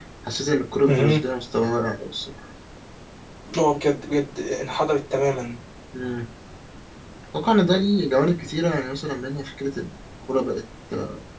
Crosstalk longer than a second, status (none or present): none